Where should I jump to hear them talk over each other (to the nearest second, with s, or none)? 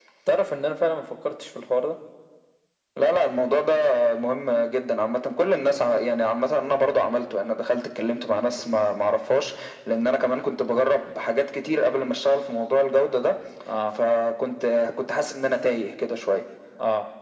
none